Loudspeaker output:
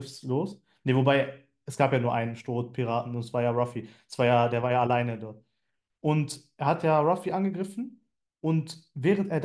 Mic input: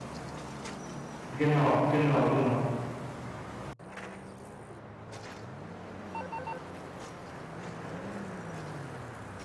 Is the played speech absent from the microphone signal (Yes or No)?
Yes